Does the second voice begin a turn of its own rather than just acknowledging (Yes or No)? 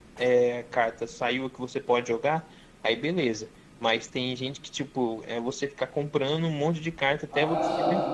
No